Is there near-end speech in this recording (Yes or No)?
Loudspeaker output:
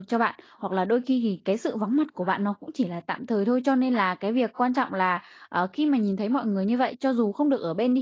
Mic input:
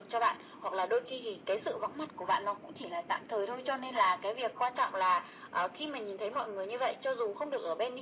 No